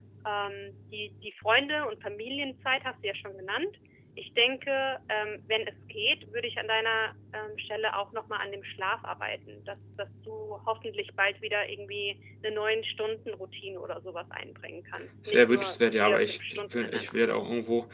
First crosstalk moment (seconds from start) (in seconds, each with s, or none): 15.2 s